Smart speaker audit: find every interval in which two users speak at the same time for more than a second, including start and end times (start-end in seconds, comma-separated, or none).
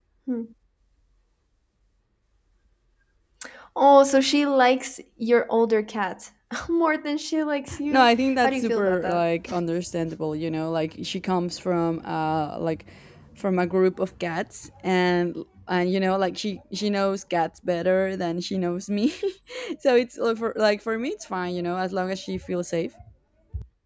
7.9-9.2